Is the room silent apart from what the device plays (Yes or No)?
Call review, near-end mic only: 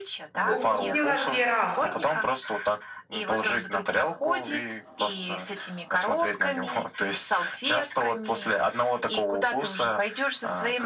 No